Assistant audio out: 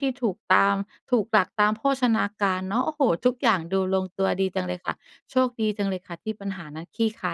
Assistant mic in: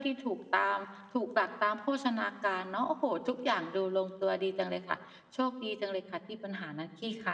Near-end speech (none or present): none